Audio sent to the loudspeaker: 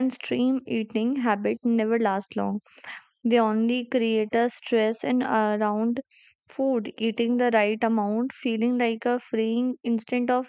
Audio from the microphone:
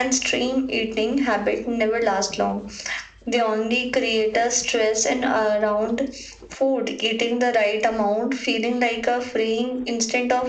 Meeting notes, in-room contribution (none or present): none